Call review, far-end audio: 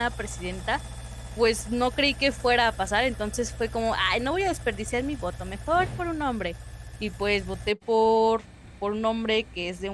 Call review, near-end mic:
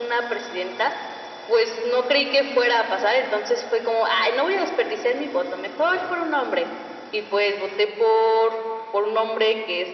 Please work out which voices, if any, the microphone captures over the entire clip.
echo only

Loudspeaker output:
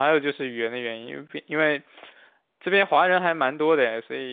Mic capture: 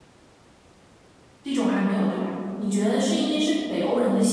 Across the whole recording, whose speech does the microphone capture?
user only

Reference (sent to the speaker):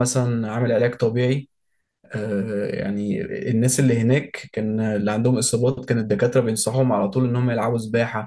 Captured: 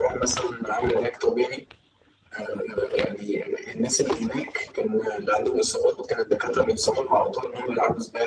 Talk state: echo only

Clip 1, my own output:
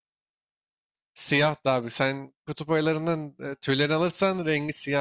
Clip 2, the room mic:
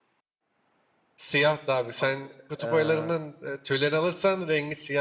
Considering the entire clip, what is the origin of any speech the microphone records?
both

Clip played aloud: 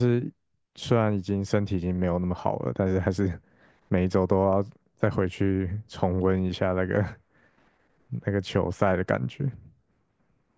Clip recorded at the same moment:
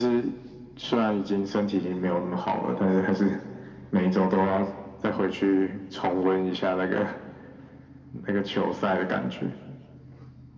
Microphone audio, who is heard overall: echo only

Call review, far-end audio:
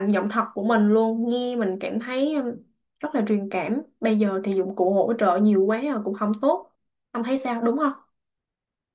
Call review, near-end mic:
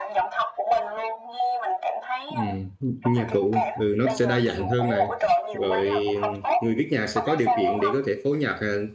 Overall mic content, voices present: both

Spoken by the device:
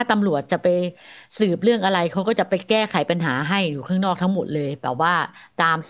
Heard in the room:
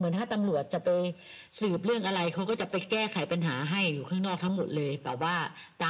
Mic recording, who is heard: echo only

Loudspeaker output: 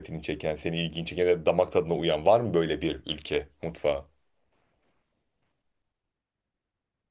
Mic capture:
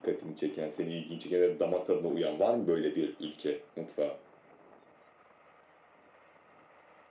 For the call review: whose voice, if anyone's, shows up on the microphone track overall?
echo only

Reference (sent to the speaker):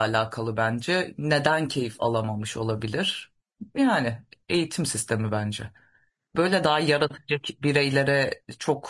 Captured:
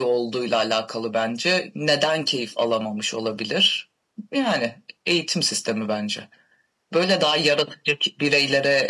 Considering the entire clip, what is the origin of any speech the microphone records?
echo only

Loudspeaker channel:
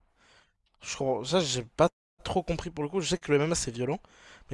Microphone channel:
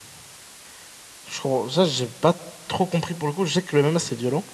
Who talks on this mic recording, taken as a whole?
echo only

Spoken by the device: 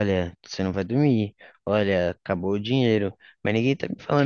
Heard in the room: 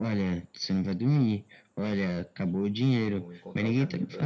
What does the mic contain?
both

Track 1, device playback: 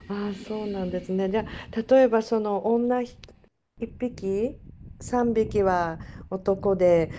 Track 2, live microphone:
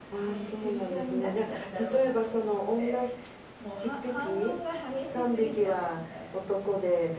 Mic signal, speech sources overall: both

